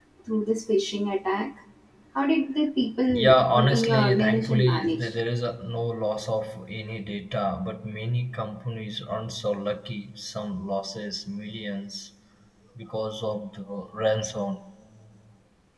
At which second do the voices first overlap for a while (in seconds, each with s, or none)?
3.1 s